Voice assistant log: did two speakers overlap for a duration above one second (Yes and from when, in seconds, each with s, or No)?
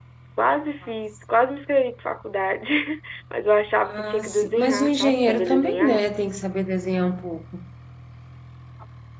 Yes, from 3.8 s